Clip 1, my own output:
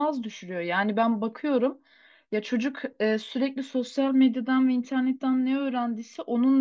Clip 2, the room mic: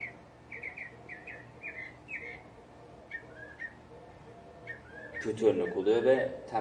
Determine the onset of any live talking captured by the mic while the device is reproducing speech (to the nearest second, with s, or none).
5 s